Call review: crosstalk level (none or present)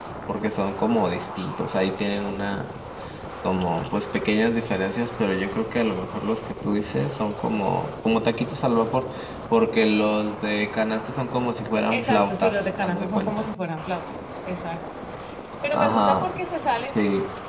present